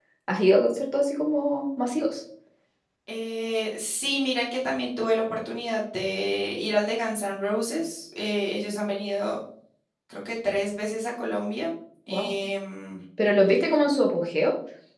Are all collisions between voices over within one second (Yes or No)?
Yes